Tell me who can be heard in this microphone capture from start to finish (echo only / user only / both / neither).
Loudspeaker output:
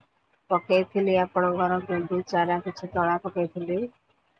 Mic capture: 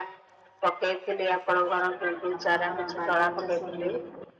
both